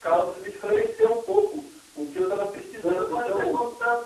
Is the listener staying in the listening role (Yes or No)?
No